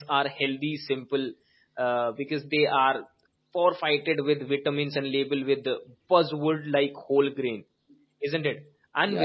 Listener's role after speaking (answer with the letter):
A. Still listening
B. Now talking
B